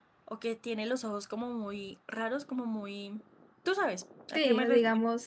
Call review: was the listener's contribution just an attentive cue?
No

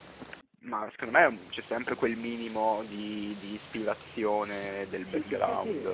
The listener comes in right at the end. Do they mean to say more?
Yes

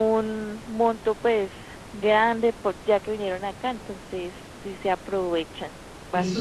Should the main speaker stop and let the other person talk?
Yes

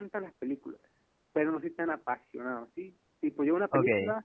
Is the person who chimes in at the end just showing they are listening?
Yes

